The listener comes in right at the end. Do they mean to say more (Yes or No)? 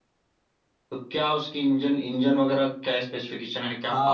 Yes